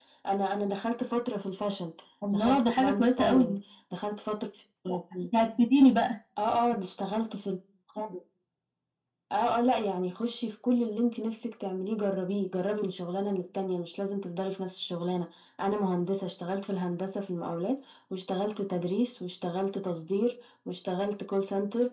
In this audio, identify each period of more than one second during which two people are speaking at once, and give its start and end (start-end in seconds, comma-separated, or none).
2.3-3.6